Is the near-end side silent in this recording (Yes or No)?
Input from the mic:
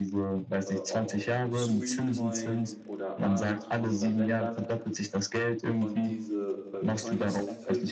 No